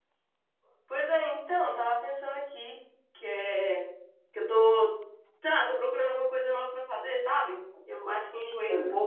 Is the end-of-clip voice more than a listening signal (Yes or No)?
No